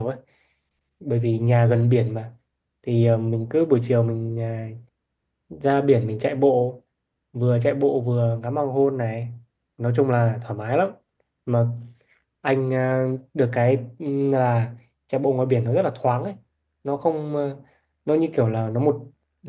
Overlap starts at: none

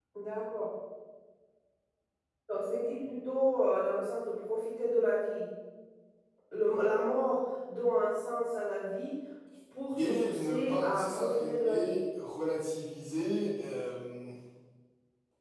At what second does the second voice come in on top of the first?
10.0 s

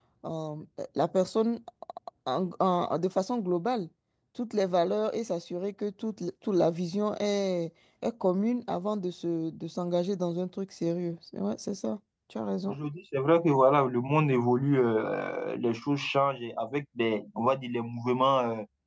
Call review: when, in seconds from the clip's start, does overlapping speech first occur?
none

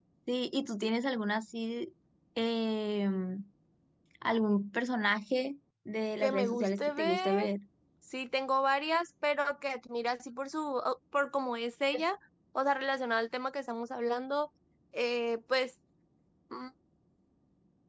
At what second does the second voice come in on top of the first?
6.2 s

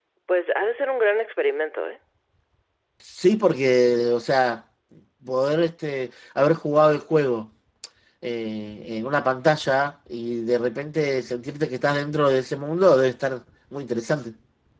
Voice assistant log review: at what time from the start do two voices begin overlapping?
none

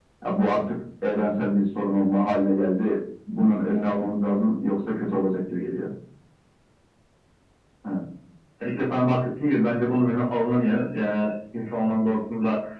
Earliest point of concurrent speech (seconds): none

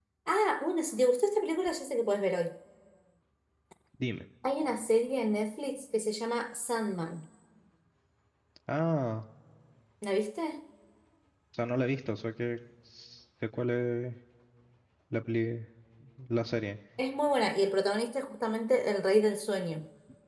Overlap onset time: none

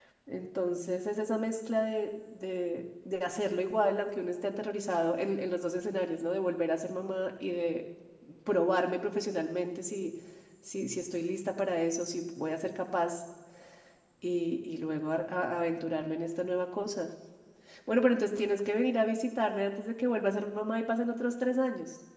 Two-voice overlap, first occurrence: none

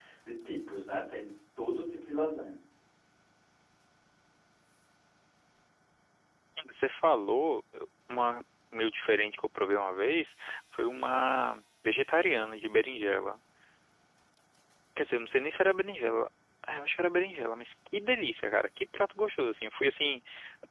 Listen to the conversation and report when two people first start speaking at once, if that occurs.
none

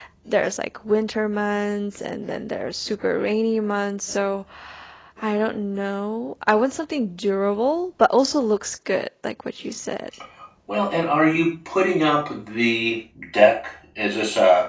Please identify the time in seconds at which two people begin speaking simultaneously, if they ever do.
none

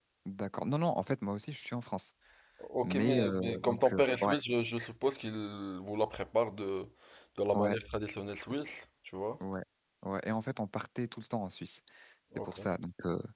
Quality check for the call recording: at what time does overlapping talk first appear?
2.8 s

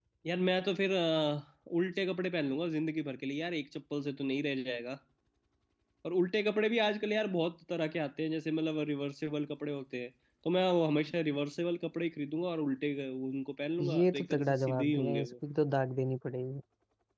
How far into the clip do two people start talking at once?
13.8 s

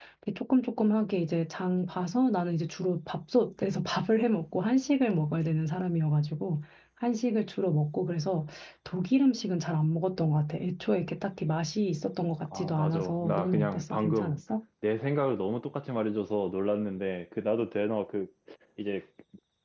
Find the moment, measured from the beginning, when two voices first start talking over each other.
12.4 s

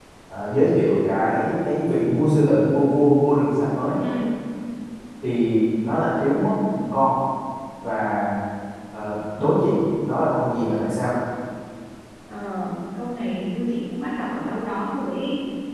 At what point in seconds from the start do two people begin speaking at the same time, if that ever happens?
none

